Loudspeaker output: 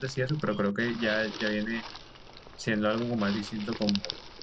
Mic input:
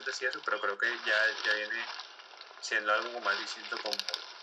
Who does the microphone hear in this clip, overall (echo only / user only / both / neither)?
echo only